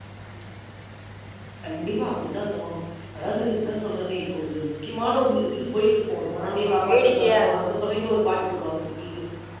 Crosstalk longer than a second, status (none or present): present